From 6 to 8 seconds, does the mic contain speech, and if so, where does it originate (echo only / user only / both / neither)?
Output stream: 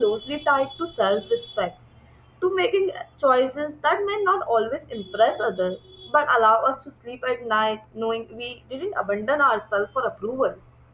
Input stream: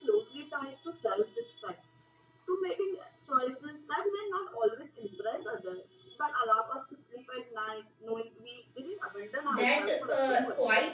echo only